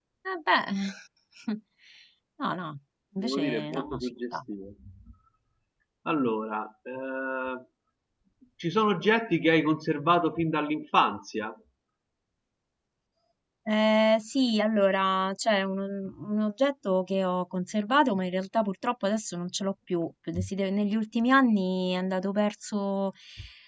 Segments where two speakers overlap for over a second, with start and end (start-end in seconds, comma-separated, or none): 3.2-4.4